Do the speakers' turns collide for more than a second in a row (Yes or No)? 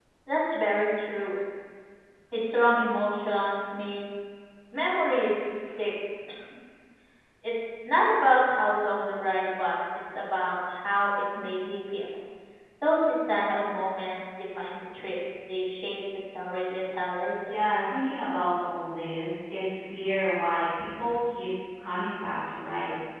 No